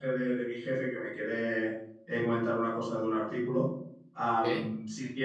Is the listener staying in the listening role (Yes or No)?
Yes